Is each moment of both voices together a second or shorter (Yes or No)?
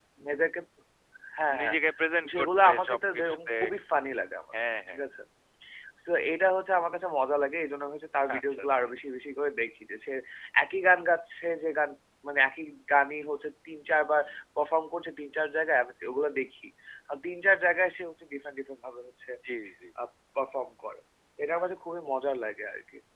No